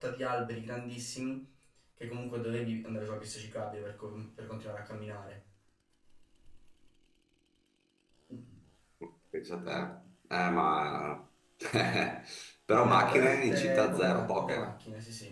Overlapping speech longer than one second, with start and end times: 12.7-14.7

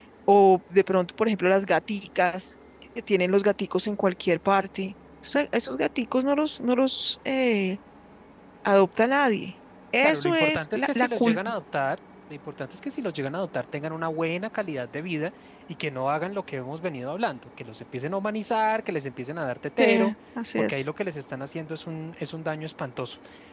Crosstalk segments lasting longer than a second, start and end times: 10.0-11.4

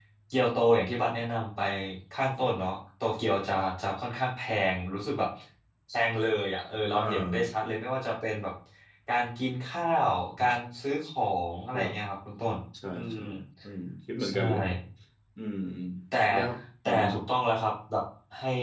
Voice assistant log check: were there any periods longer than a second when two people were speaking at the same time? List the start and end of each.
none

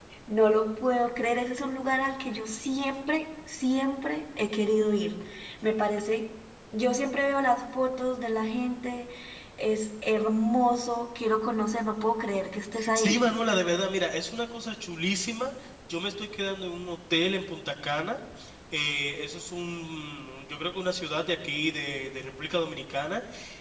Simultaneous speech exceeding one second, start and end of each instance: none

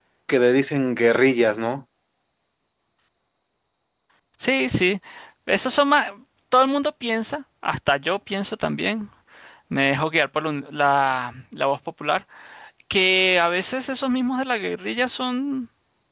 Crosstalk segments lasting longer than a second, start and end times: none

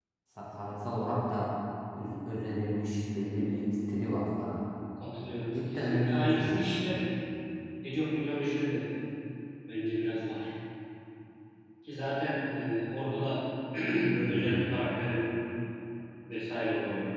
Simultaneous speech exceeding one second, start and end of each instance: 5.5-7.0

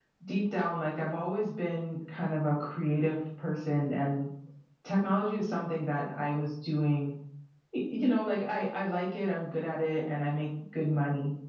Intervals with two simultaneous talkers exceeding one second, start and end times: none

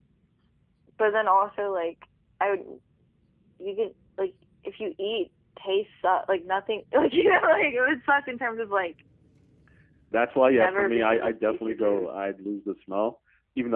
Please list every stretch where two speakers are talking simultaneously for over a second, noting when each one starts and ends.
10.5-12.1

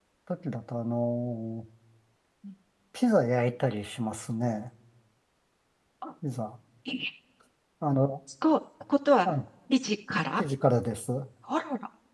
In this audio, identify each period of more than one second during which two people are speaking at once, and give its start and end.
none

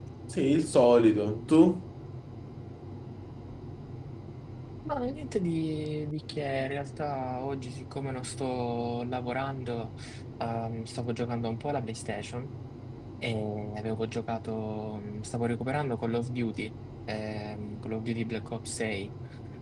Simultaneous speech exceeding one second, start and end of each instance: none

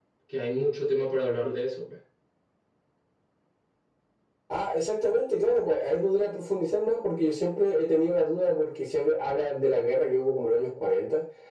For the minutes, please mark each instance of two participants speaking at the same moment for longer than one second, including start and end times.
none

